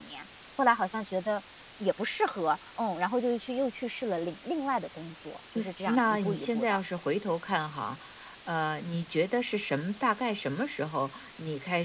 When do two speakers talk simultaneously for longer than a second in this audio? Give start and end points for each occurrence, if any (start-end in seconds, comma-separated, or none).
5.5-6.8